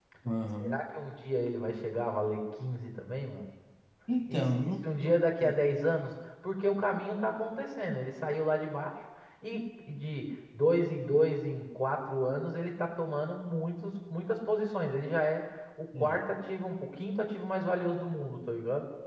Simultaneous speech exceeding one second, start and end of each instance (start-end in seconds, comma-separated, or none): 4.3-5.5